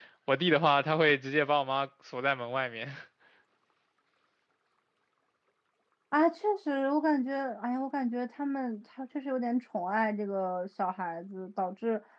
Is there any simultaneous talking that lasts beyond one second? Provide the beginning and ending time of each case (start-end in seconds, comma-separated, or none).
none